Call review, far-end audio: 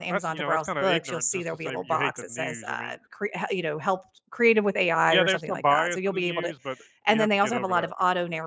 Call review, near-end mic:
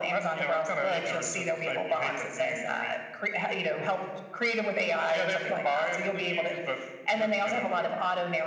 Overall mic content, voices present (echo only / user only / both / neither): echo only